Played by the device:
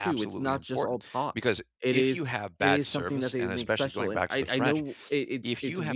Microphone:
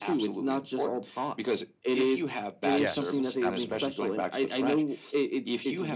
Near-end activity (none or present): present